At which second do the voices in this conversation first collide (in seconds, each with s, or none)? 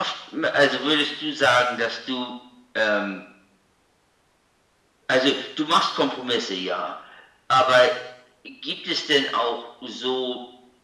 none